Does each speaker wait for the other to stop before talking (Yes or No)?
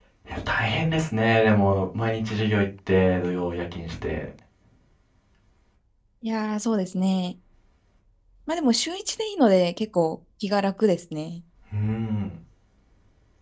Yes